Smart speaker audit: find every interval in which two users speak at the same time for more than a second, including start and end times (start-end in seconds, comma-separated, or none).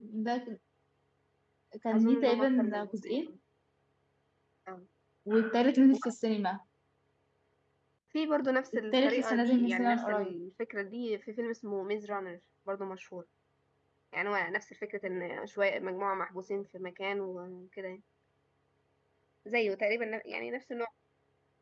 1.9-3.2, 8.7-10.3